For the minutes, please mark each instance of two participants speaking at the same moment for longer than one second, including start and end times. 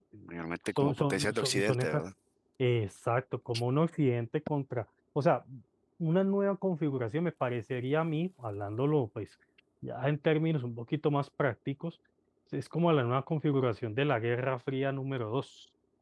0.8-2.0

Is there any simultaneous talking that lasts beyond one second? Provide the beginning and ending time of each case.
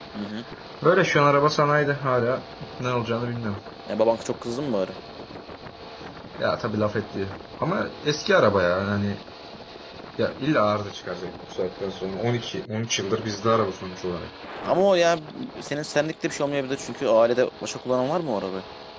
none

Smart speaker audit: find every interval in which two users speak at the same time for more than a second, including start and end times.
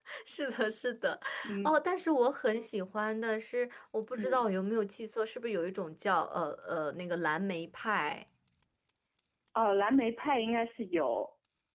none

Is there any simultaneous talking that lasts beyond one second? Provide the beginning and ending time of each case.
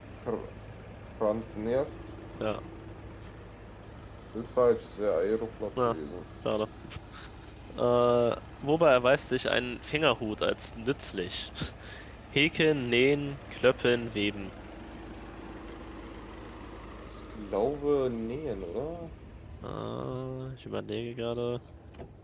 none

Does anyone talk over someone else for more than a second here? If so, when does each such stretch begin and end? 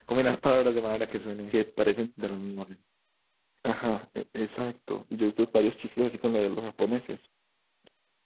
none

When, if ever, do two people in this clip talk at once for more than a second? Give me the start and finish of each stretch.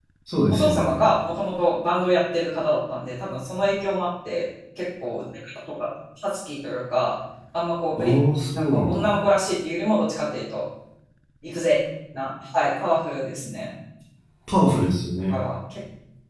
none

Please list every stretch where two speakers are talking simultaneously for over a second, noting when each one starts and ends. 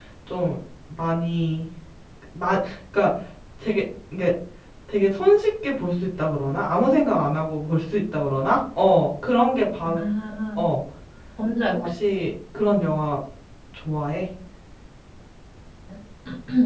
none

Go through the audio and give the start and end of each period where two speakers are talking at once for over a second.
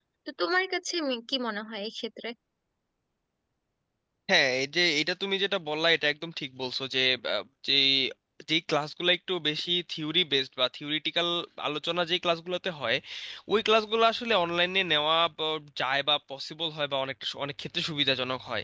none

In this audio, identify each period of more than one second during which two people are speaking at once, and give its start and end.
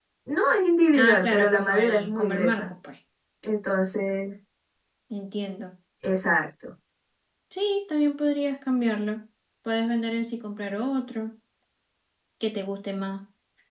0.9-2.7

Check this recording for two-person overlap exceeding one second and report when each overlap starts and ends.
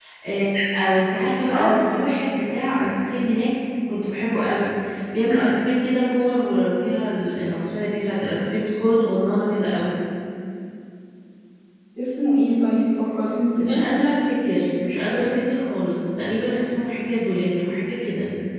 none

